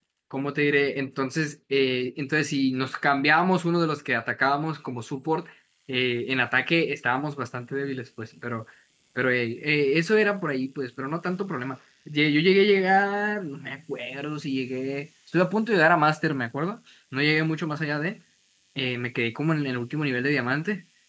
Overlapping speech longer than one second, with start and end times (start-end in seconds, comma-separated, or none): none